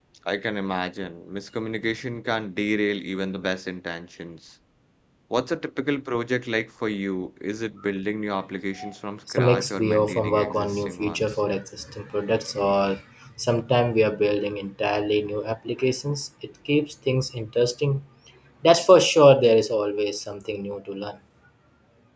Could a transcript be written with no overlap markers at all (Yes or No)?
No